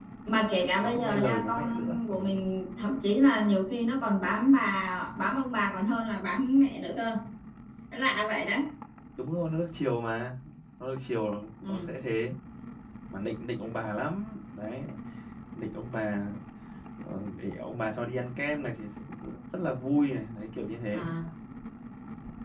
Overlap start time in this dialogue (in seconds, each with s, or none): 0.8 s